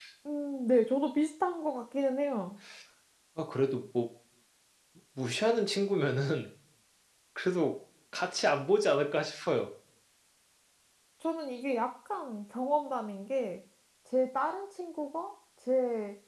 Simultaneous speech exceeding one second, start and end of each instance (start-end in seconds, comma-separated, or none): none